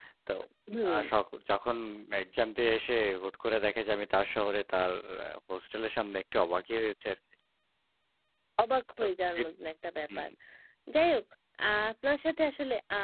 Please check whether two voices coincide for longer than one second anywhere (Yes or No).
No